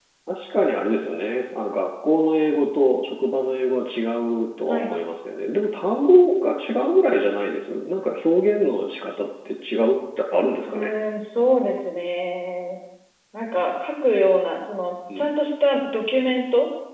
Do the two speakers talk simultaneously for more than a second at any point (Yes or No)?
No